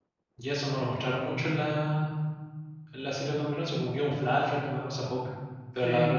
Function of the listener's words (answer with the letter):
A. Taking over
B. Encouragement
B